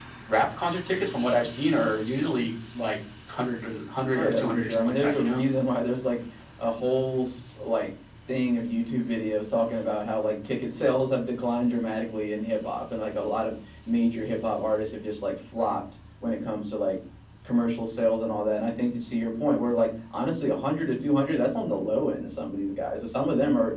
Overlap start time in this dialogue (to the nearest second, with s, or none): 4 s